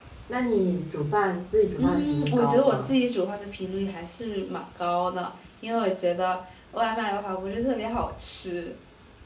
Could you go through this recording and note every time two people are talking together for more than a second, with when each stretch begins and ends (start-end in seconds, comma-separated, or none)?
1.8-3.0